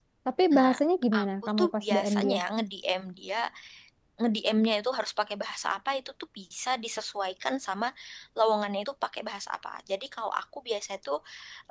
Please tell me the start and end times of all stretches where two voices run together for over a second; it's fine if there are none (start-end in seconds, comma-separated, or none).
1.2-2.4